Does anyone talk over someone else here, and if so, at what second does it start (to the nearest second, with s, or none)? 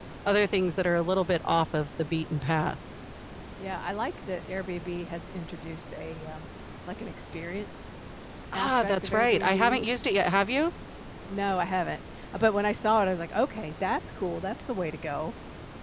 9 s